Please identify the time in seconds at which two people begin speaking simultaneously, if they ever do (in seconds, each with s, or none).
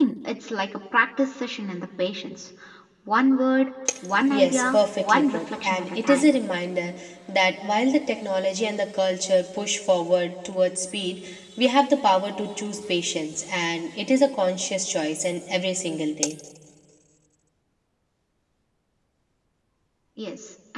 4.1 s